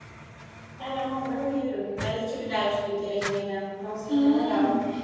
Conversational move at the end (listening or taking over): taking over